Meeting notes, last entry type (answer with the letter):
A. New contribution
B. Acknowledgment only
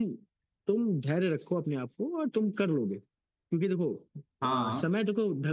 B